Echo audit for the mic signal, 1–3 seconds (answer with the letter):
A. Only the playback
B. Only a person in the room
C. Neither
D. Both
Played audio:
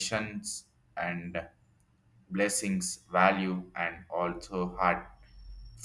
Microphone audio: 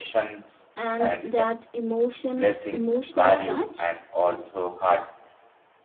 D